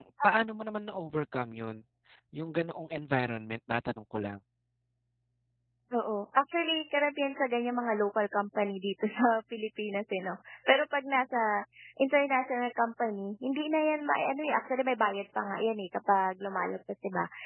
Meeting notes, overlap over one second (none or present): none